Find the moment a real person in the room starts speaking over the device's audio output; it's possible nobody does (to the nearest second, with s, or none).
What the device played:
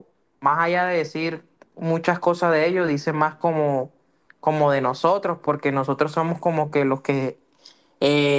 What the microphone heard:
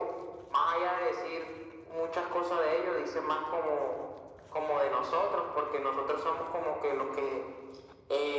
none